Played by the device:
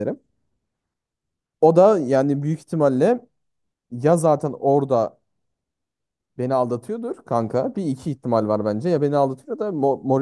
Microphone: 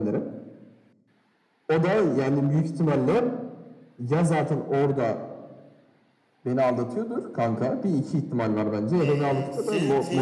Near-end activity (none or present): present